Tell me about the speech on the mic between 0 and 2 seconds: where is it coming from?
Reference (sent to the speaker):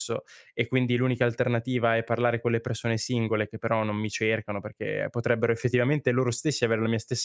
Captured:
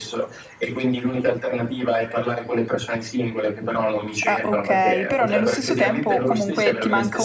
echo only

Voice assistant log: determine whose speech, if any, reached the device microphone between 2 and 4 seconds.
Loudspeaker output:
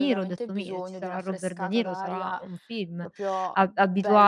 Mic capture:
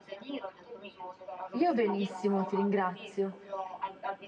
both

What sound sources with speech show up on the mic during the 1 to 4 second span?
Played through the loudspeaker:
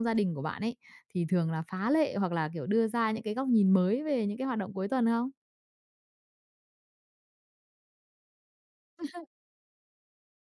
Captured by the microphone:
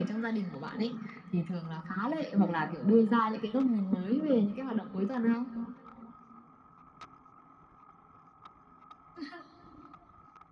echo only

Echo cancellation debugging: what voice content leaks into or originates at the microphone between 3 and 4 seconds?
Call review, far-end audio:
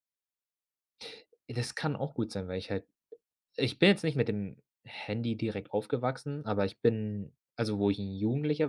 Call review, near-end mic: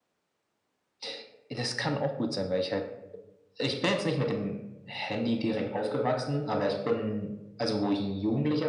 echo only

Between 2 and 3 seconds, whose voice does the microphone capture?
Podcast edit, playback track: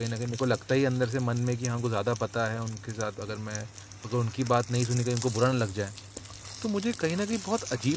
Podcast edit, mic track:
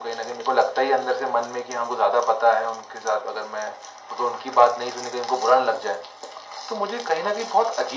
echo only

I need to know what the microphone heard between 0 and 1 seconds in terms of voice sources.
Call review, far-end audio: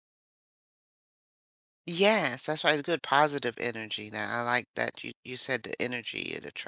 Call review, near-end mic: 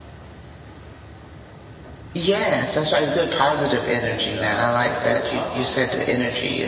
neither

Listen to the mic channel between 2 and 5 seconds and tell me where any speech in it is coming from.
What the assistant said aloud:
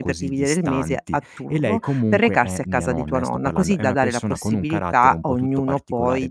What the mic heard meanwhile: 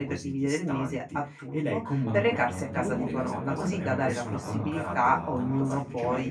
both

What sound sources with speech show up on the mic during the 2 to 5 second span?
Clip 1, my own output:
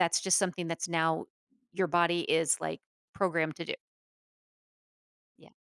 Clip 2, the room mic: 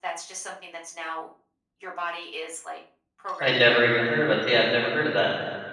both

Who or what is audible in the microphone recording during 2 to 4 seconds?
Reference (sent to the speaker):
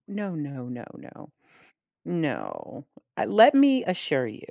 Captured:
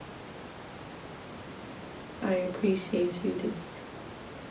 user only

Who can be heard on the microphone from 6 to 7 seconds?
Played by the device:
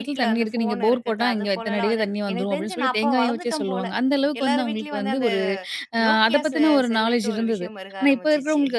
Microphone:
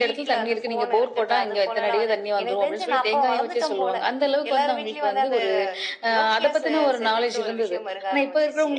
echo only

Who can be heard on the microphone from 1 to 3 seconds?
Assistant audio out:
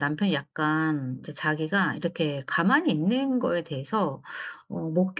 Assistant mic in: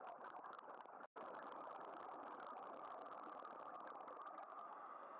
neither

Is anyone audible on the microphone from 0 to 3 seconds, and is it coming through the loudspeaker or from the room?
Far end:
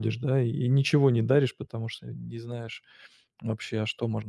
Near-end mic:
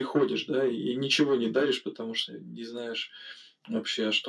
echo only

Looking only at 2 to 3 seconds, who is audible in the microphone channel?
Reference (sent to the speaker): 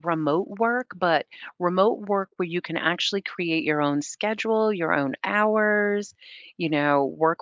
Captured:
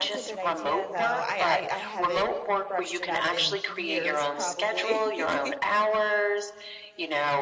both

